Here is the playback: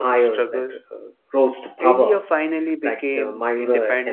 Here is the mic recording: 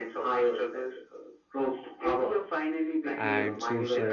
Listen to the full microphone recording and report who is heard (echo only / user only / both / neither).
both